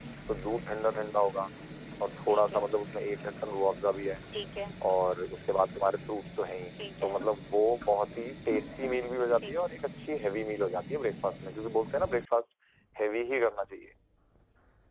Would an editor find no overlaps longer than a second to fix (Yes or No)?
Yes